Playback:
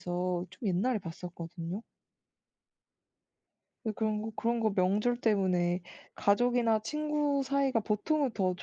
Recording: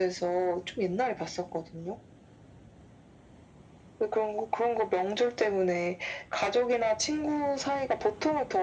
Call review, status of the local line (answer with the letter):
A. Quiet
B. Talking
A